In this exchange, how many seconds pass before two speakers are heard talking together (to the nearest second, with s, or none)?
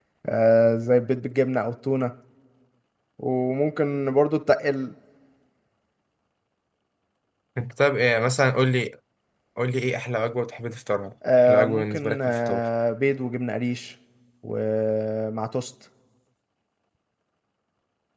11 s